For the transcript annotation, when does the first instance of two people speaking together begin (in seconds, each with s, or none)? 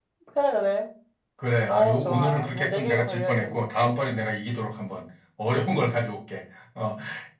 1.7 s